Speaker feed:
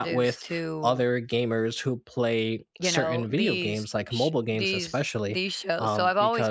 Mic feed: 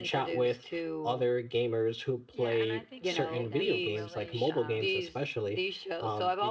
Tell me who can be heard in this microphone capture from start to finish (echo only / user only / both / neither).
both